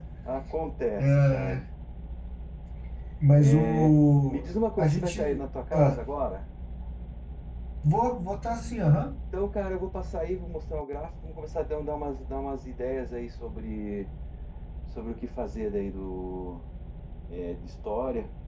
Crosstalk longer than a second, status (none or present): present